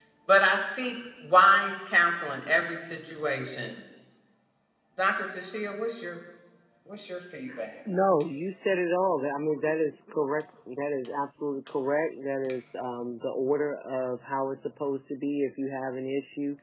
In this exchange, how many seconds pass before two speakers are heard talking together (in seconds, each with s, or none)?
none